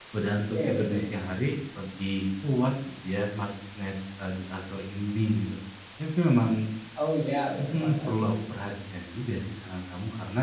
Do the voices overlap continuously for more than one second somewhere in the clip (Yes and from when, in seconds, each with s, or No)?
No